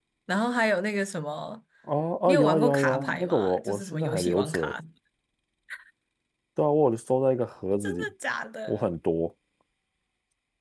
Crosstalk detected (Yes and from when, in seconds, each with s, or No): Yes, from 2.3 s